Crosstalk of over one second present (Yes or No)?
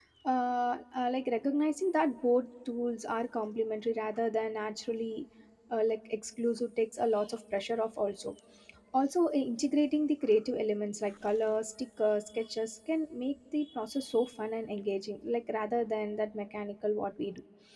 No